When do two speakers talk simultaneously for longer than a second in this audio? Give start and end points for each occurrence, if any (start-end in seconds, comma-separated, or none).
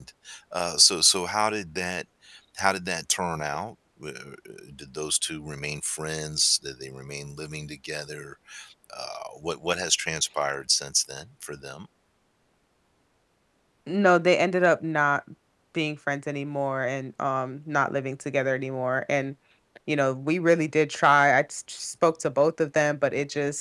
none